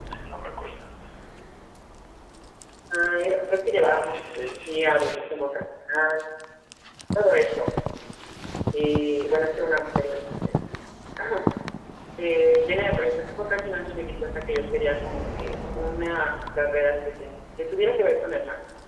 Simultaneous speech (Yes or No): Yes